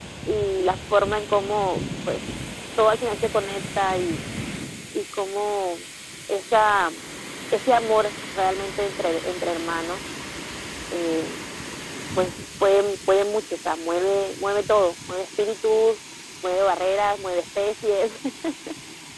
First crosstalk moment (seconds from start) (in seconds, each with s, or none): none